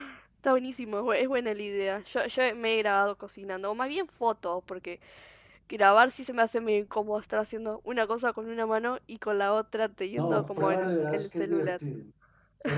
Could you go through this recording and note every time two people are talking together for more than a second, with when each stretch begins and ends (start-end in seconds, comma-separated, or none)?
10.1-11.8